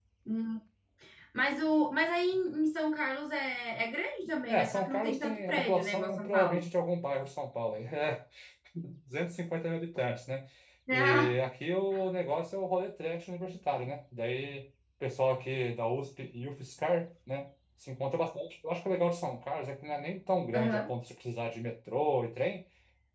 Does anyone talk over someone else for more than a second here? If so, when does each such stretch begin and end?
4.5-6.6

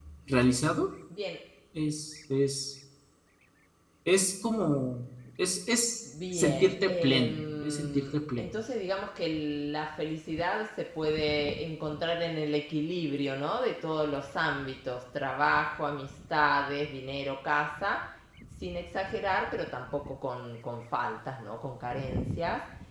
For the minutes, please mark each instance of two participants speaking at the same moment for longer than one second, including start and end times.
6.3-8.5

